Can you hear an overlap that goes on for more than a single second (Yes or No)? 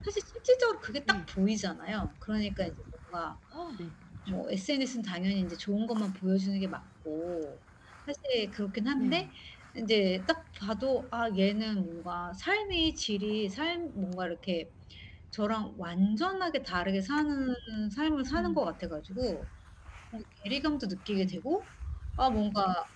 No